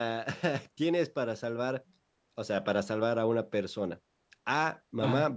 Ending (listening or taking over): listening